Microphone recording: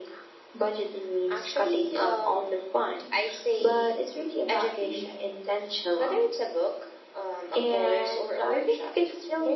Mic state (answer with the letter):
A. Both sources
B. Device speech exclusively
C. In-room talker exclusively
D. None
B